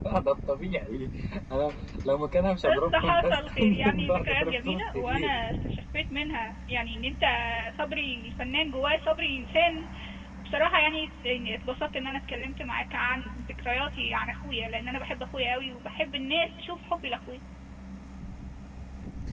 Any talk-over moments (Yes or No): Yes